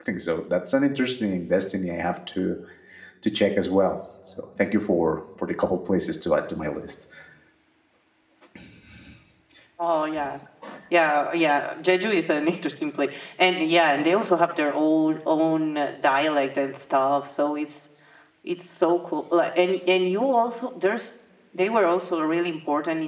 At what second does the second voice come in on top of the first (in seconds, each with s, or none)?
none